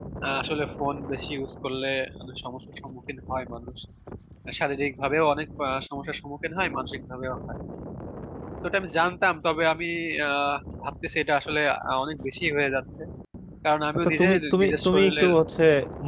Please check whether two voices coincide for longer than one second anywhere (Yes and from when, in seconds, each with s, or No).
Yes, from 14.0 s